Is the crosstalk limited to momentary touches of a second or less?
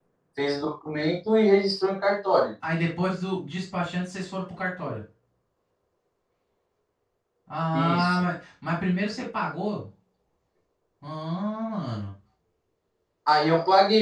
Yes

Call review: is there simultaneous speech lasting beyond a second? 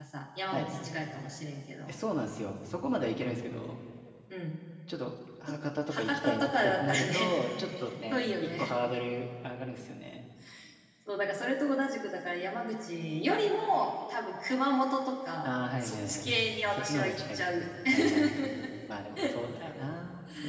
Yes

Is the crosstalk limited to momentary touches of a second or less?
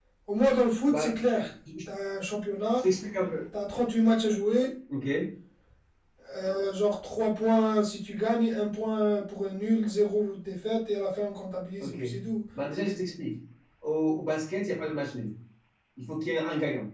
Yes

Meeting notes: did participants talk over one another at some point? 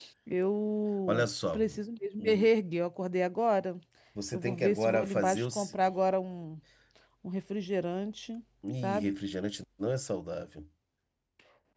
Yes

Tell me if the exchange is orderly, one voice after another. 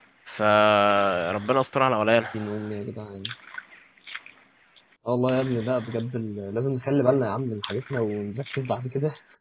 Yes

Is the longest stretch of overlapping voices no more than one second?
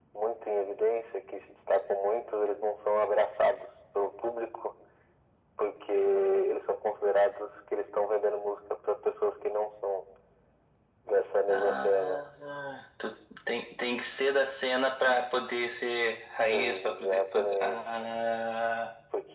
No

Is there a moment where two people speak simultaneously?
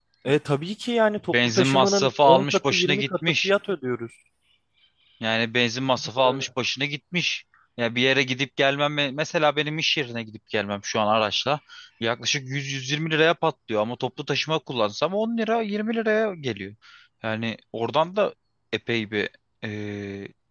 Yes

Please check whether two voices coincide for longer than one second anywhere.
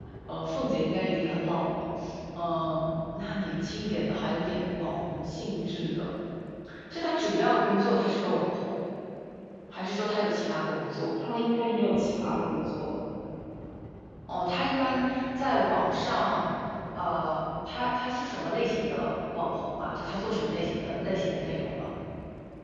No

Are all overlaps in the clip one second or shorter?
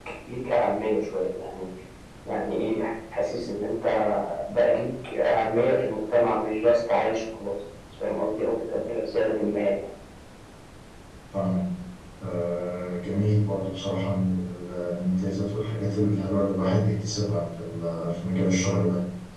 Yes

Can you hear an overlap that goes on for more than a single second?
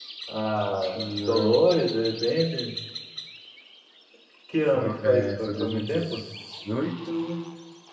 Yes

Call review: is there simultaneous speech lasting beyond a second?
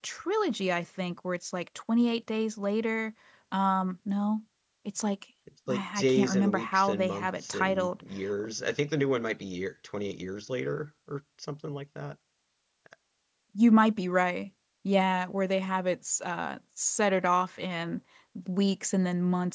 Yes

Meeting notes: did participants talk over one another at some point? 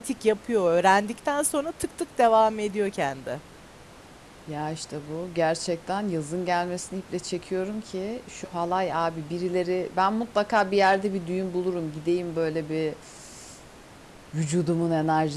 No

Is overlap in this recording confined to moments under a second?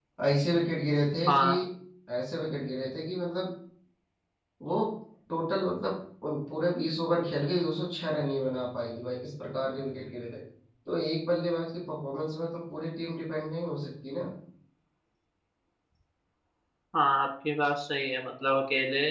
Yes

